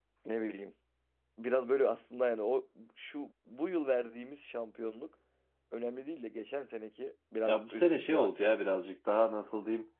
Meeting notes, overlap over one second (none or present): present